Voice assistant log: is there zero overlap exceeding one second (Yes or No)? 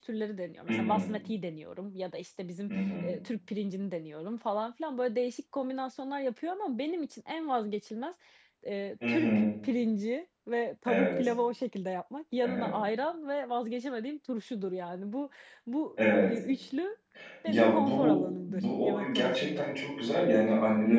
No